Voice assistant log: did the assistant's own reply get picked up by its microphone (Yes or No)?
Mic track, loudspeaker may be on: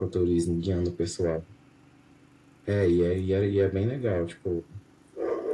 Yes